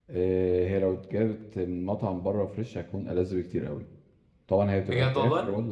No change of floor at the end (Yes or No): Yes